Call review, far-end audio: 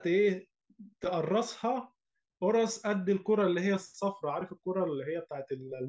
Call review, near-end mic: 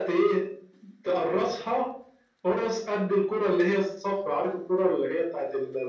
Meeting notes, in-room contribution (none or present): none